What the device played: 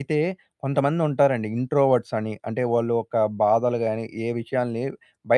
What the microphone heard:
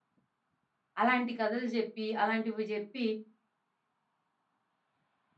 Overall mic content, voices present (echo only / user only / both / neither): user only